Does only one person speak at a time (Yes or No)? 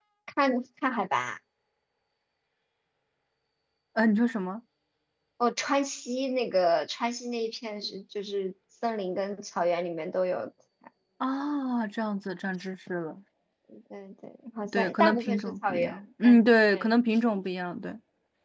No